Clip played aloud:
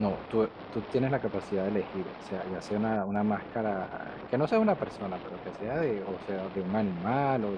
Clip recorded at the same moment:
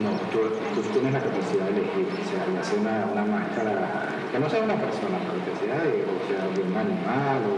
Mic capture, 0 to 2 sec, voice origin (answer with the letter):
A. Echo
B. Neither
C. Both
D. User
C